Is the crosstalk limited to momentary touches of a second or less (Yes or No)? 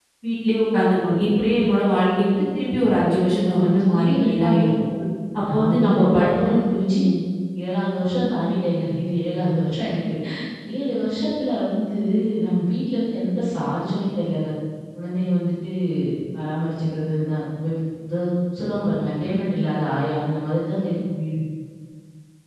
No